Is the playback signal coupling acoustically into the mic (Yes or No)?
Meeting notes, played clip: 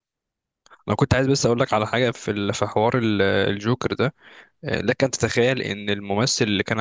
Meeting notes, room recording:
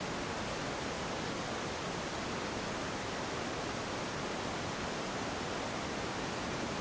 No